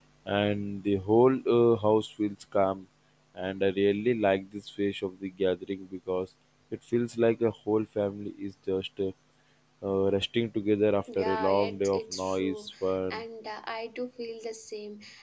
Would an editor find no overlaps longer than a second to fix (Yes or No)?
No